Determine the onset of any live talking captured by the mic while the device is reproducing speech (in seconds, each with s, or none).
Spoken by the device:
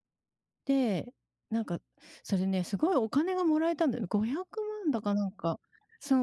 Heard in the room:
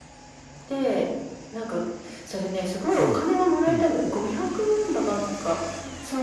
3.0 s